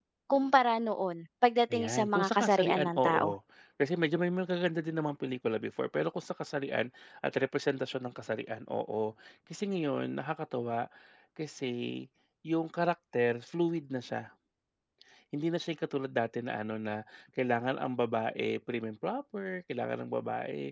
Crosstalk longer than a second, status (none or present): present